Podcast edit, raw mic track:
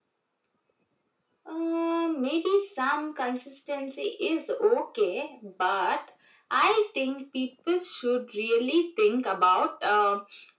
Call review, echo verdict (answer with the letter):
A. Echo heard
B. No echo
A